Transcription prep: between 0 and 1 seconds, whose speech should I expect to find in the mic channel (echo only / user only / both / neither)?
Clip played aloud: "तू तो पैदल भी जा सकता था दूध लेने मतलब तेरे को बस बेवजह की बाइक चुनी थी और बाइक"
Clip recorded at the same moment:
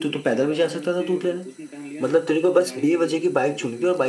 both